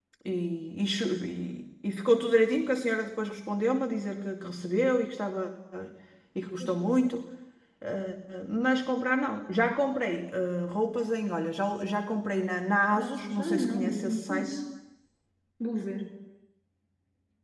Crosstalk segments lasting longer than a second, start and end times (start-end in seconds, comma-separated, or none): 12.9-14.5